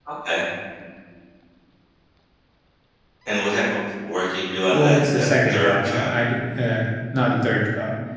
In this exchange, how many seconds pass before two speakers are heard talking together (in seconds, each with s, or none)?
4.7 s